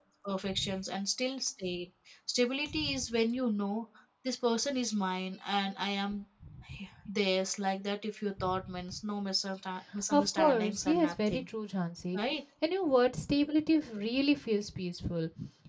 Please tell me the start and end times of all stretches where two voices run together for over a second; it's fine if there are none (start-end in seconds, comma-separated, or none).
10.1-11.4